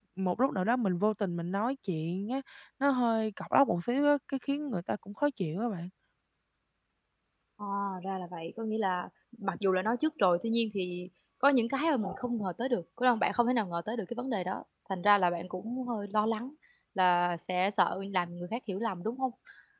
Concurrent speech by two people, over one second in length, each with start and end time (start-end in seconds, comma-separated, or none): none